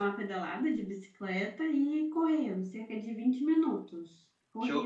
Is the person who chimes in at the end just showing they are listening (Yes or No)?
No